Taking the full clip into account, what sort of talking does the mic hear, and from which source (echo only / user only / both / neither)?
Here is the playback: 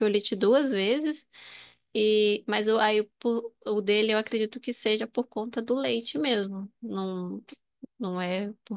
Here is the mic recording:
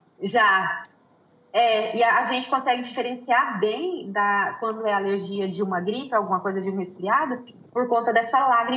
user only